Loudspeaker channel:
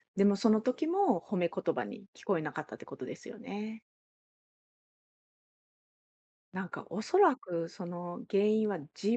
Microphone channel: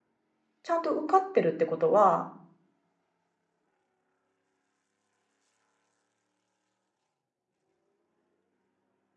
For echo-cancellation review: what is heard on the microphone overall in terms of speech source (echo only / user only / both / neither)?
user only